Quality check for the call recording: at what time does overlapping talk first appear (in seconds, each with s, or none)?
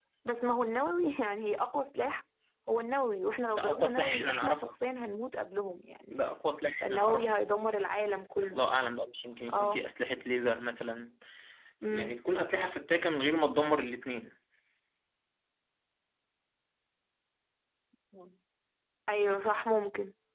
3.5 s